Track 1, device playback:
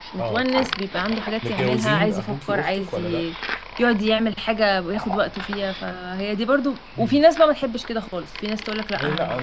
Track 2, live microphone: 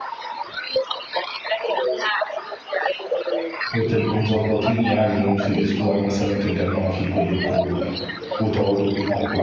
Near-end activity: present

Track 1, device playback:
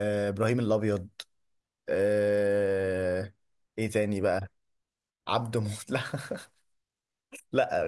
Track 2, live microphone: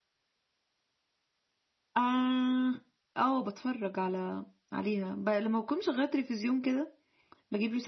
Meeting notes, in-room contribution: present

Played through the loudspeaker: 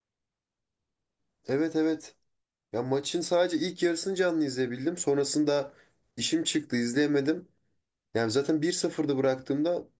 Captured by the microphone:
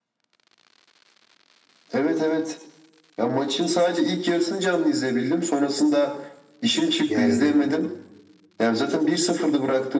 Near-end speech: present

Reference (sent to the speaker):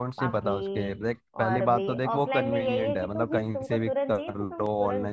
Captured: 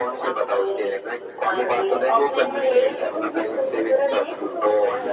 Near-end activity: none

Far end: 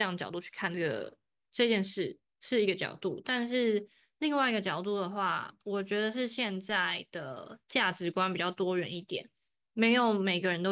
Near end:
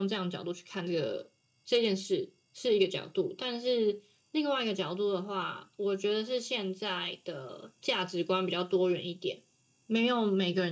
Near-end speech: none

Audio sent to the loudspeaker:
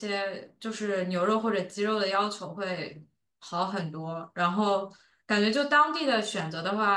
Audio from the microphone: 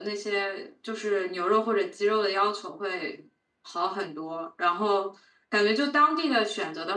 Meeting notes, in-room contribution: none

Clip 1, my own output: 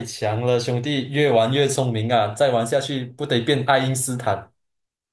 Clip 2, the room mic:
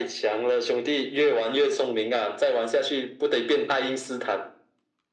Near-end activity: none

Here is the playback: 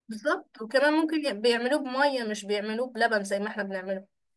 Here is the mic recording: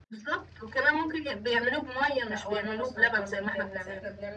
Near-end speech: present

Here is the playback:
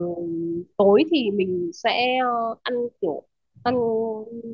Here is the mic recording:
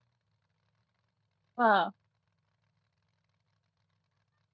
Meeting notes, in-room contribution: present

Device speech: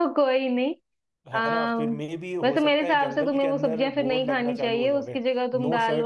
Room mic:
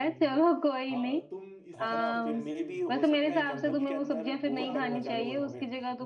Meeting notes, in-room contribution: present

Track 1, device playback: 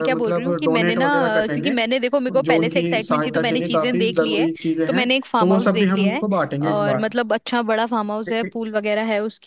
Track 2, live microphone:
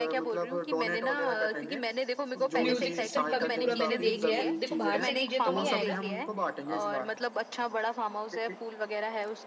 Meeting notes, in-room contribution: present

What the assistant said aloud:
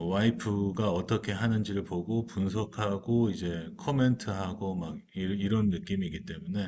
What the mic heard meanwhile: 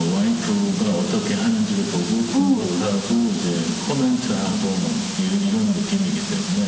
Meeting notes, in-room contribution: present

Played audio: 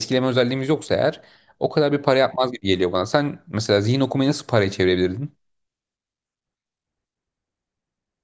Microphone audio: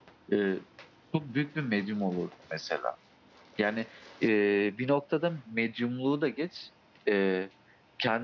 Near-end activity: present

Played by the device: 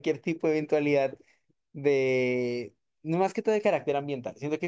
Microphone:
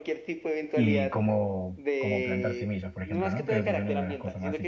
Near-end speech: present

